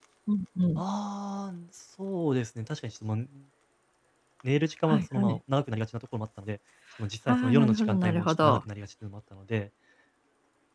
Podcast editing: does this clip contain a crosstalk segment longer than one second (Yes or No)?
Yes